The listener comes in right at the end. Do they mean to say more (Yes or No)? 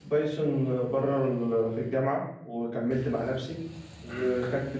No